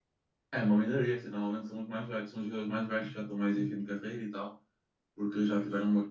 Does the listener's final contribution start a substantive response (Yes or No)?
No